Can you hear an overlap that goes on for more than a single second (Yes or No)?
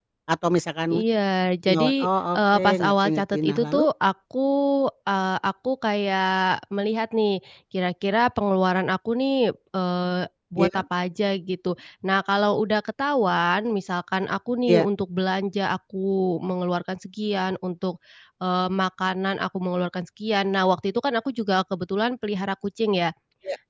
Yes